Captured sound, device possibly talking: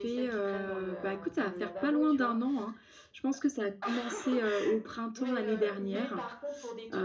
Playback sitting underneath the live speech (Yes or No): Yes